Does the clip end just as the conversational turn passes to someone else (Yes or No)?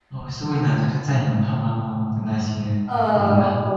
Yes